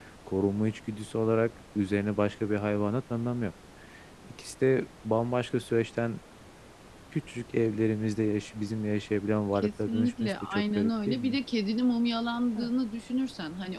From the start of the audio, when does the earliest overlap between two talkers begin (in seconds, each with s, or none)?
9.6 s